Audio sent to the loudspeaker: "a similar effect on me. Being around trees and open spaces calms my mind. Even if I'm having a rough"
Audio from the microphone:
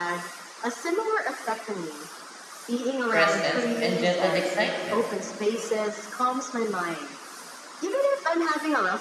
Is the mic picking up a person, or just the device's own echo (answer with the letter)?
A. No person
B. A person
B